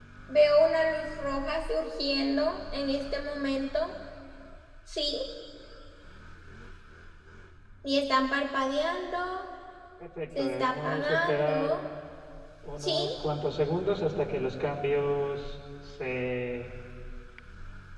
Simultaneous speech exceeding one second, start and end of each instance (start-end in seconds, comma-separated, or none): 10.4-11.8